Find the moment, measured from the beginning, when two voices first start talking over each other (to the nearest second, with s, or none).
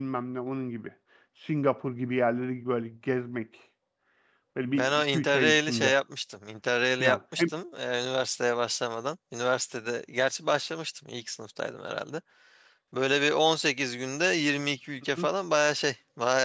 5 s